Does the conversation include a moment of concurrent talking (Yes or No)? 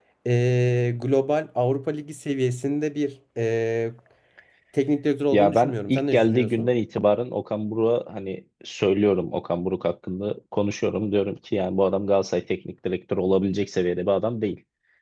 Yes